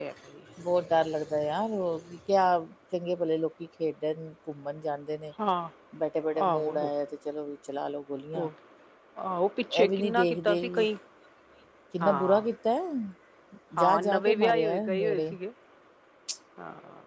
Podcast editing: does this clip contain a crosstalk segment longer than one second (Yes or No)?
Yes